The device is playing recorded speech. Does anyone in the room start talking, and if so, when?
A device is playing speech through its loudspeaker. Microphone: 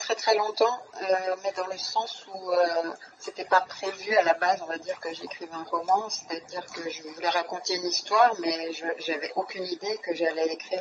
none

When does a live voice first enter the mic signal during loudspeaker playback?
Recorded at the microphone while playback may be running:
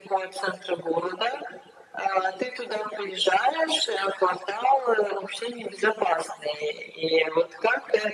none

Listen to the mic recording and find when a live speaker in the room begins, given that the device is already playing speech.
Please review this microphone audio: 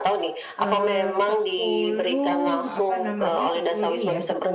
0.5 s

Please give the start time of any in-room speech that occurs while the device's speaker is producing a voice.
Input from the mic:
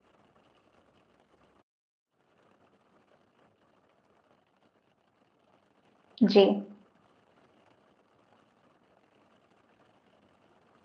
6.2 s

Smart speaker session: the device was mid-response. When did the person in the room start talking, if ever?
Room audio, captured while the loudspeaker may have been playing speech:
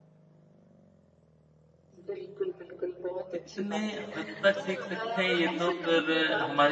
3.3 s

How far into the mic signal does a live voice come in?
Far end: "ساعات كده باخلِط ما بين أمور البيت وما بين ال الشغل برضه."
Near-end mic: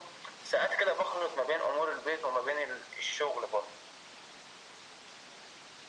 none

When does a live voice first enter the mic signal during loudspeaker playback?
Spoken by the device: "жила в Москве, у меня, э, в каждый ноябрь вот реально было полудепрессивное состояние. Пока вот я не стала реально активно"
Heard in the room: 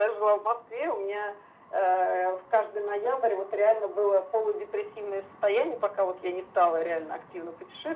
none

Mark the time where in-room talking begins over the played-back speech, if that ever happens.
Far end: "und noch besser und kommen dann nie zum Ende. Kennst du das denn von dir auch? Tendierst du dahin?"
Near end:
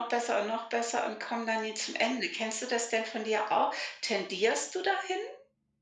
none

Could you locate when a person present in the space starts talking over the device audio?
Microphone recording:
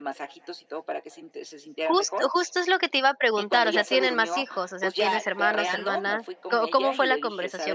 1.8 s

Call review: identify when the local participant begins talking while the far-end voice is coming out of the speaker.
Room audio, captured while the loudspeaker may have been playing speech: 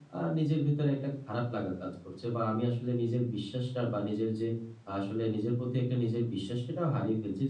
none

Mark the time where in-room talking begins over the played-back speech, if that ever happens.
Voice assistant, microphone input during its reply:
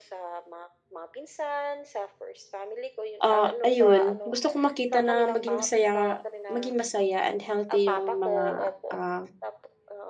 3.2 s

